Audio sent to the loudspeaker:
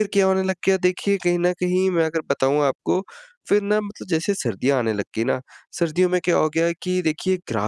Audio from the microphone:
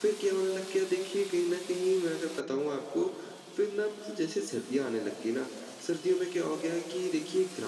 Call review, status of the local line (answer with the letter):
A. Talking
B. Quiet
B